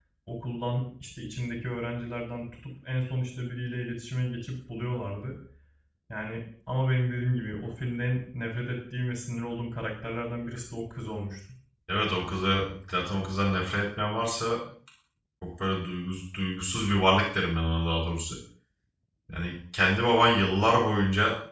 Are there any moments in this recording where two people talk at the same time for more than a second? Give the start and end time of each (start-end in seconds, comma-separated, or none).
none